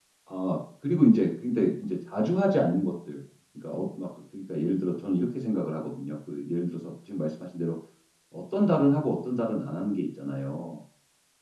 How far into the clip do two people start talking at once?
none

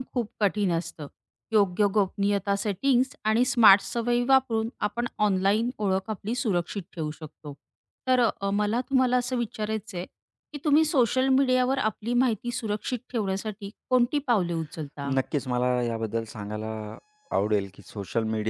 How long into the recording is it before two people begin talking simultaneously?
none

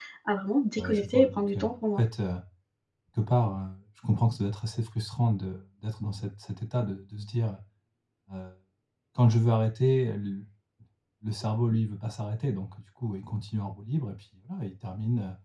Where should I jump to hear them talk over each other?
0.8 s

